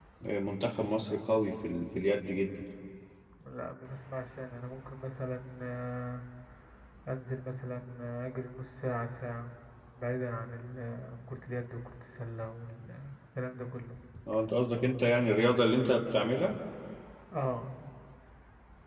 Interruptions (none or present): none